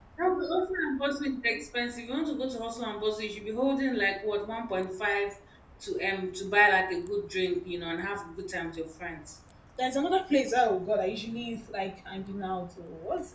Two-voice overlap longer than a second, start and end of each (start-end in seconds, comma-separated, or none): none